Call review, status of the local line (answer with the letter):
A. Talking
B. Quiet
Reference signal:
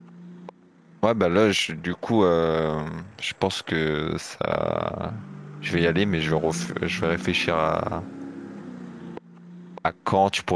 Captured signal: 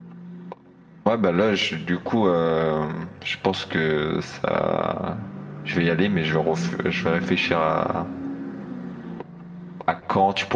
B